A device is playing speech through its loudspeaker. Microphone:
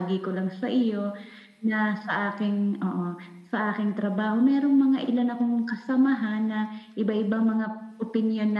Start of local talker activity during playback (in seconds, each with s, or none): none